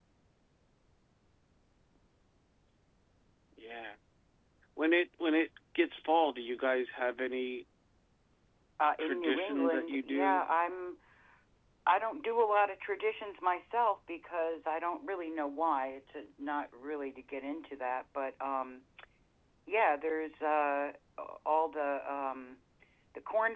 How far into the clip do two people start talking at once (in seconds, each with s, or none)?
9.0 s